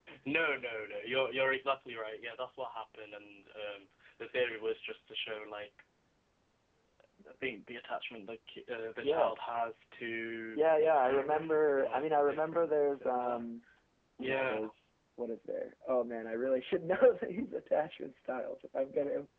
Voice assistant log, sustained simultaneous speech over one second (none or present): present